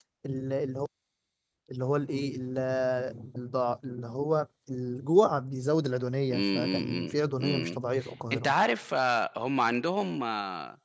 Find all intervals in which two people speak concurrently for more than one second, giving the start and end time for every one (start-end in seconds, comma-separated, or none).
6.3-7.8